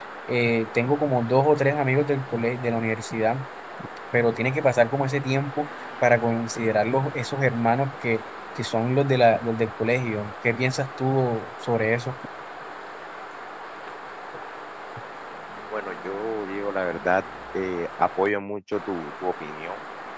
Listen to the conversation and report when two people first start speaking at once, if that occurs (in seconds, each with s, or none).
none